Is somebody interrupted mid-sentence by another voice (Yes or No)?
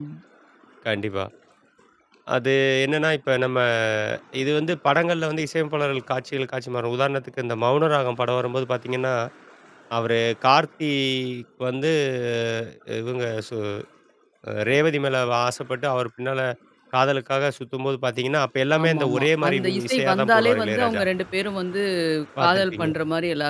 Yes